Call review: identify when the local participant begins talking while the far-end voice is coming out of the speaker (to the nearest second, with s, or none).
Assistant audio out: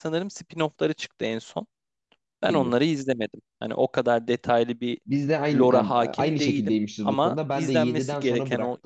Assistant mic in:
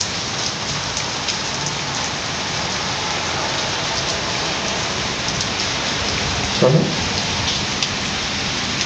7 s